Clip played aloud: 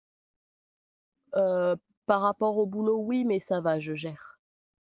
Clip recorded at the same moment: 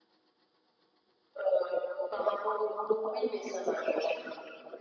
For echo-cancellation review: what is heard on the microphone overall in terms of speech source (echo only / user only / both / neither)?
echo only